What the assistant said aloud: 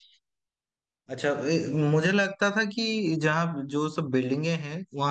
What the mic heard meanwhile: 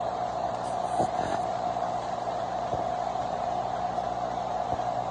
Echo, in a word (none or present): none